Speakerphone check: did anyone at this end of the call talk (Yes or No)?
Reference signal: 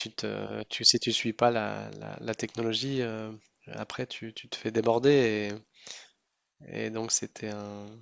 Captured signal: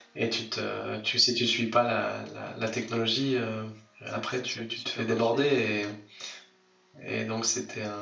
Yes